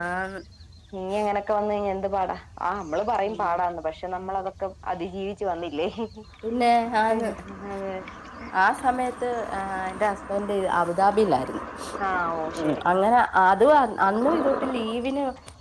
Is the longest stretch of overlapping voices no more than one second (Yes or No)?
Yes